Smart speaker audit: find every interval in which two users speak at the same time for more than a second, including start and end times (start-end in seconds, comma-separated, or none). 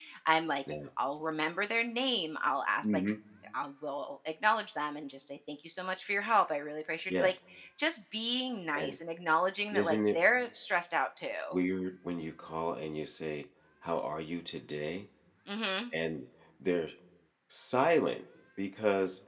none